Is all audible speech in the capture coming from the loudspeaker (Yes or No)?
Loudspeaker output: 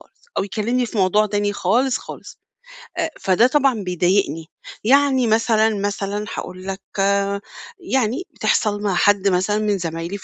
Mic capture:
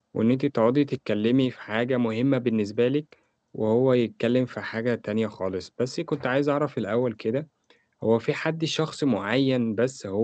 No